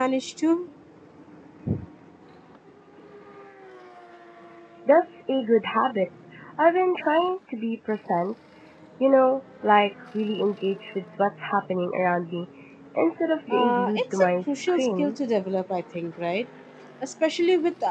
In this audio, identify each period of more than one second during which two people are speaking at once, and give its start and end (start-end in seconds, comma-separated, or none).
13.5-15.2